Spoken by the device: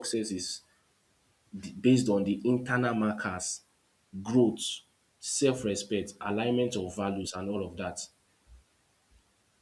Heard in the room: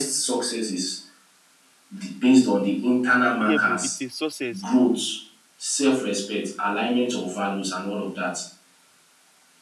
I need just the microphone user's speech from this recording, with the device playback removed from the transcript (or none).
Yeah, bro, it's a success.